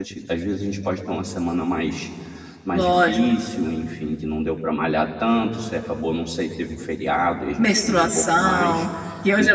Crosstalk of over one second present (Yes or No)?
Yes